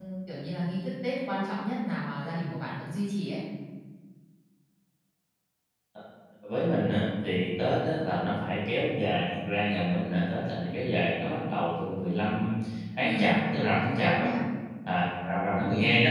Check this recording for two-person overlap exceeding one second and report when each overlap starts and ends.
13.0-14.3

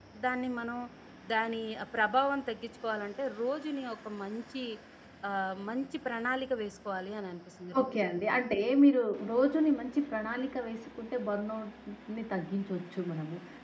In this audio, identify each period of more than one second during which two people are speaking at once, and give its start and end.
none

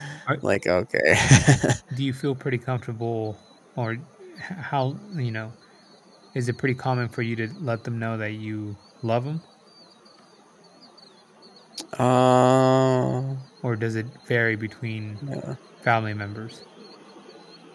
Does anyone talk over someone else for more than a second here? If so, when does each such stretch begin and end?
none

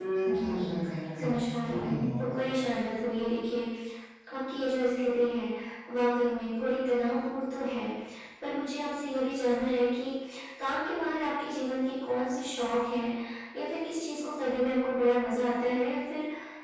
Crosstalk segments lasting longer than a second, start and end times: 1.2-2.6

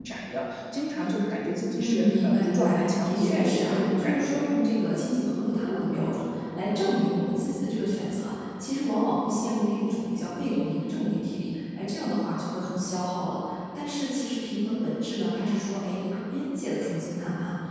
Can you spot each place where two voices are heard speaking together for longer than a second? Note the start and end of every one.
1.8-4.5

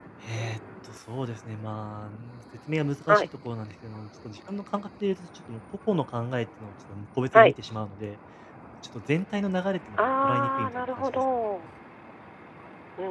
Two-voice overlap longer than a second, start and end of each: 10.0-11.2

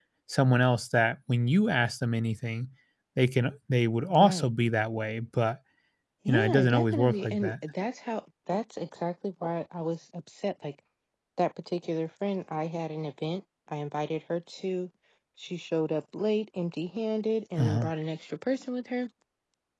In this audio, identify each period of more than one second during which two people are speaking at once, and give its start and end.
6.3-7.5

